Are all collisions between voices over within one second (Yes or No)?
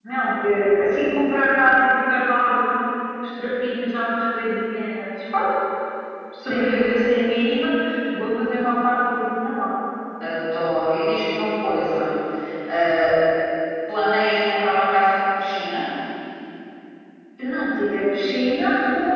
Yes